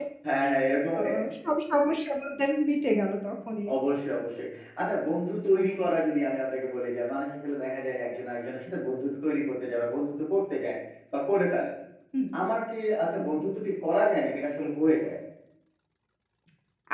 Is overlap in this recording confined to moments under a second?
Yes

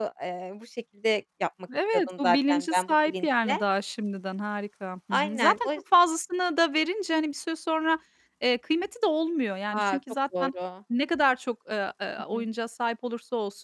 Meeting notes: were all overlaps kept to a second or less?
No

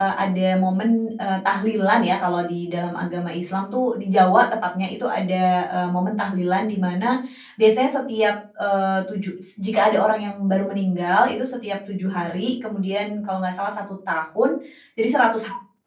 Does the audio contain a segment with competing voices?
No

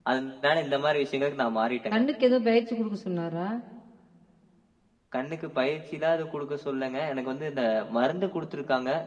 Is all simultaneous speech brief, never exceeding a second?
Yes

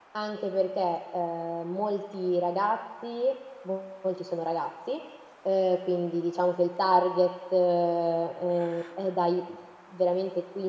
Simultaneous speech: No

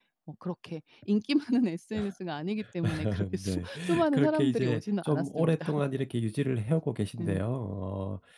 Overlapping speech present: Yes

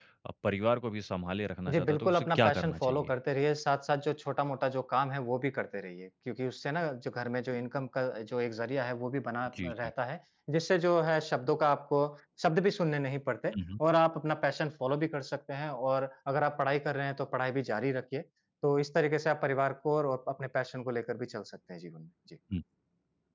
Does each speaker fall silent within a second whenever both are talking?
No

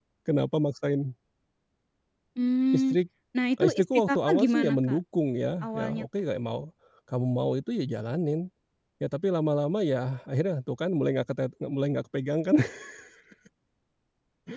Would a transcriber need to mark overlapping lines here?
Yes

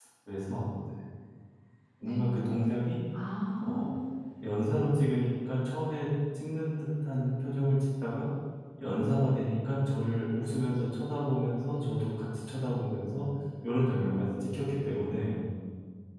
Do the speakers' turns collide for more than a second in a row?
No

